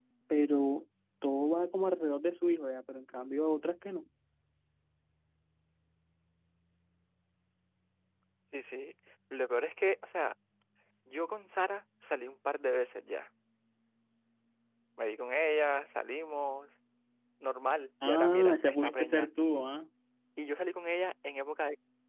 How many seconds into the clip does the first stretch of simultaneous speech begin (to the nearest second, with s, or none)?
18 s